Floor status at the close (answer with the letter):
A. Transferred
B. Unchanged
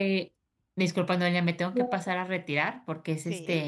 B